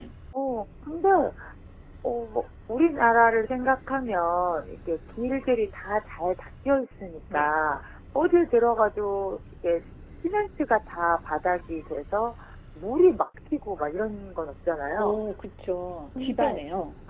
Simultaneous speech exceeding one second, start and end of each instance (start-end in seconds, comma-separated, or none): none